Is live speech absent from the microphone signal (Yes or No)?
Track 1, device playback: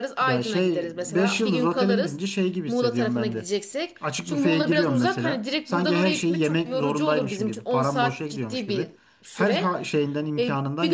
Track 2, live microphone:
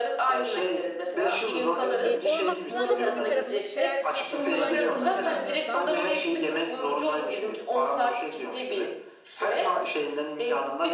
No